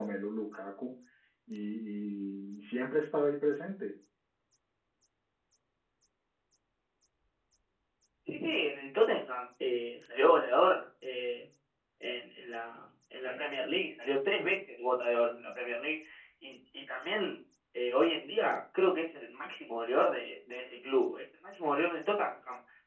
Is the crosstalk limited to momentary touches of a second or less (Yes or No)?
Yes